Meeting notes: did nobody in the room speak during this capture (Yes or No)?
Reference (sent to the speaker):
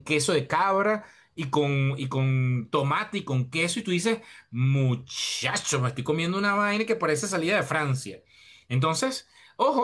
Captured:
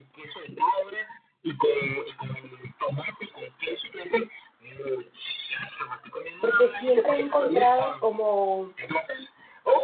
No